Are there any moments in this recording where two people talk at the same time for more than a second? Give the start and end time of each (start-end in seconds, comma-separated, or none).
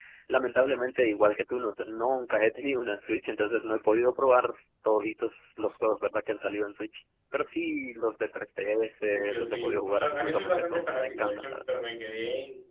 9.1-11.6